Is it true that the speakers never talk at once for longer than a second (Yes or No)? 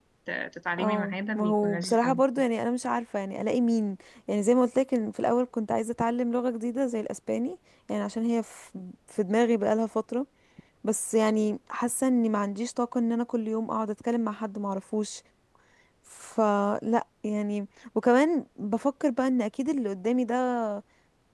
No